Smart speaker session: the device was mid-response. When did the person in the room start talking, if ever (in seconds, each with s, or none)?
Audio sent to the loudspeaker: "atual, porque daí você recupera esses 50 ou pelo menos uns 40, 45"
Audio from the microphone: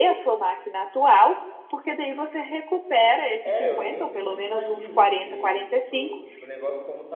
3.4 s